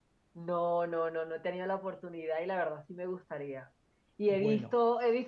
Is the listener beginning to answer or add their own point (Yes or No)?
No